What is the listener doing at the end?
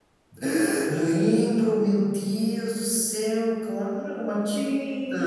taking over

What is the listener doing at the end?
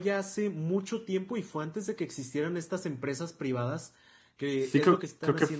taking over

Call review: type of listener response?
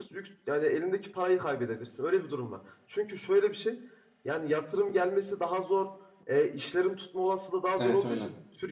listening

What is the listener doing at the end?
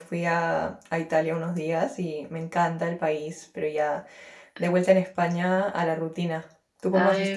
taking over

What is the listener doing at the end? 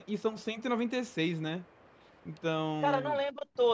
taking over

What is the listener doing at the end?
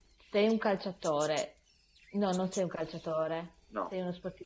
listening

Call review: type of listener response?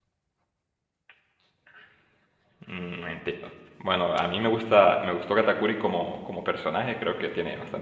listening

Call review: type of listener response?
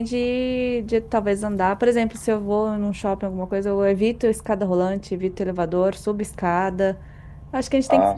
listening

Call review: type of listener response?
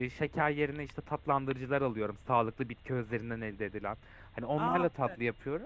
listening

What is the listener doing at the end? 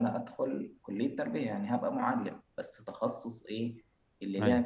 listening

